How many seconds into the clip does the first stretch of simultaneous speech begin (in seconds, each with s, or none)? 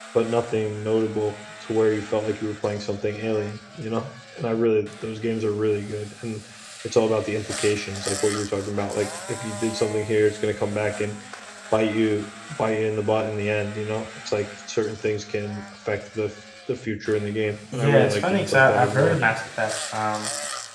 17.7 s